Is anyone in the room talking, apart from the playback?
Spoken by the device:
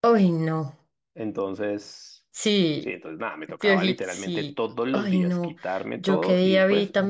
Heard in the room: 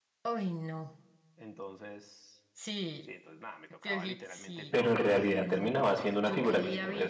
Yes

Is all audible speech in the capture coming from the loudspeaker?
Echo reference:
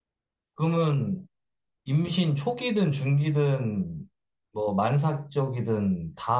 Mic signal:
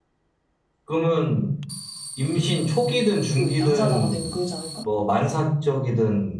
No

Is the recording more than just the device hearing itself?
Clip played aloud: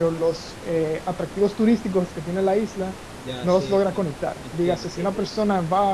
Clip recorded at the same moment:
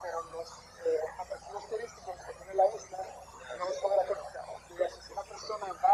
No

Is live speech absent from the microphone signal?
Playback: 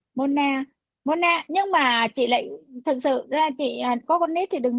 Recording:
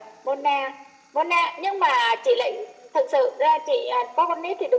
Yes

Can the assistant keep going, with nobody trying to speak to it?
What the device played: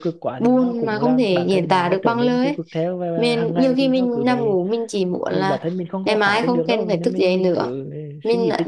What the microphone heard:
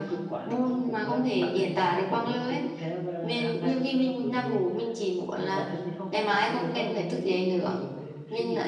Yes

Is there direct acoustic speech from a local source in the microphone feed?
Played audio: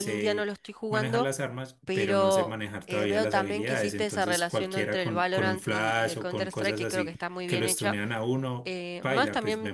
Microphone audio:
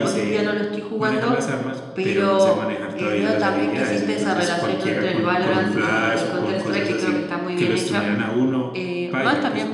No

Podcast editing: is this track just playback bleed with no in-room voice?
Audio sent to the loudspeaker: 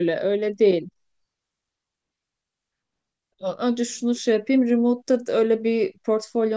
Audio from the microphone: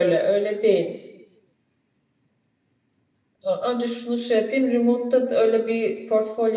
Yes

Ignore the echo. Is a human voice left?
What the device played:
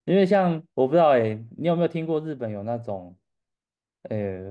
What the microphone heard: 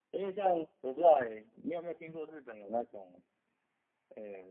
No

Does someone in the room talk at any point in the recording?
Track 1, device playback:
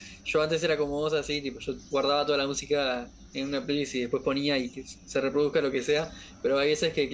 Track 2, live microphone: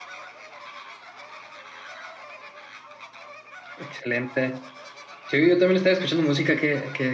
Yes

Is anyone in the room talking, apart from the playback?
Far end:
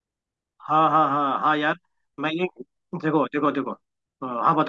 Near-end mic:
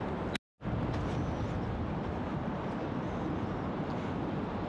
No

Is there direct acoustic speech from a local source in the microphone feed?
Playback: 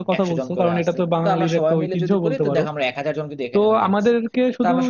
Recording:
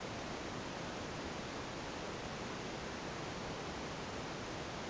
No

